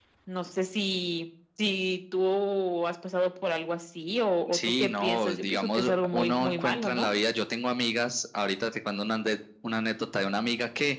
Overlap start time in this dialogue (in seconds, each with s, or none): 4.5 s